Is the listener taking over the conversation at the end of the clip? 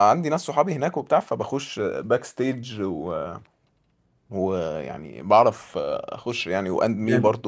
Yes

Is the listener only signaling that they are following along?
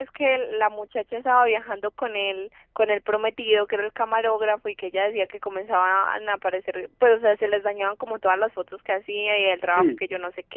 No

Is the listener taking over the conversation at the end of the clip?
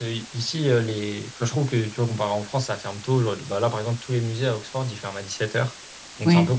No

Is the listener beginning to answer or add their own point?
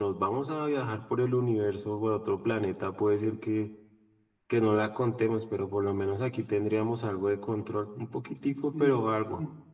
Yes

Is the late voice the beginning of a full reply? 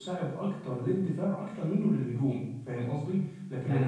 Yes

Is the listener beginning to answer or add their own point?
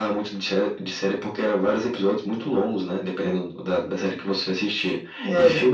No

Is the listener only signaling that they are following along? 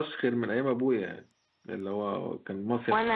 No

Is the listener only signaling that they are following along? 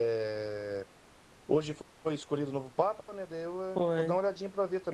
Yes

